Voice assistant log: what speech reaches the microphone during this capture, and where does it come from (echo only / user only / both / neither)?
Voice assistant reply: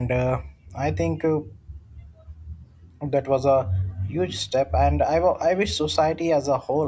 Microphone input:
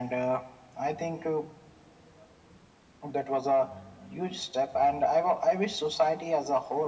echo only